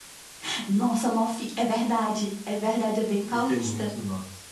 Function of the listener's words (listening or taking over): taking over